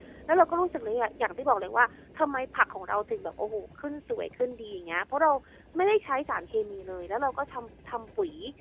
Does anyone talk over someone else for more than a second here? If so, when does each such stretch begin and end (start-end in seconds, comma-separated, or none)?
none